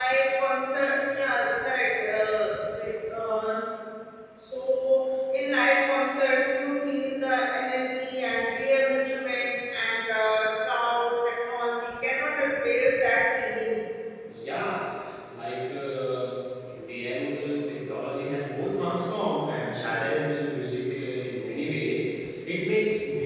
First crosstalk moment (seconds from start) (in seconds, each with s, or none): none